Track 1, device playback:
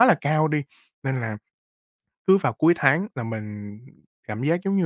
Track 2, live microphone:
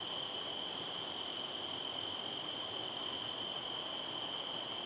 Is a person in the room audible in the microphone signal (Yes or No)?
No